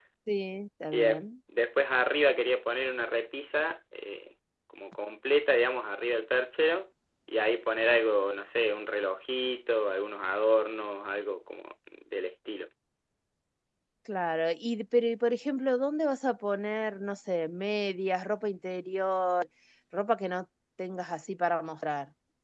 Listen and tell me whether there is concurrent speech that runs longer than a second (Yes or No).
No